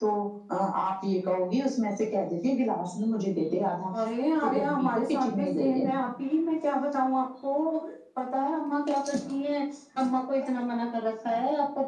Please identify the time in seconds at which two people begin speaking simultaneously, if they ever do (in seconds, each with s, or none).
4.4 s